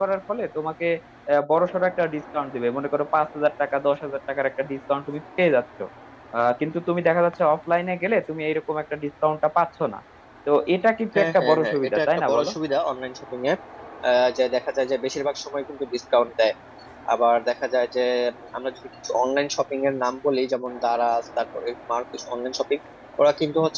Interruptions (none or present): present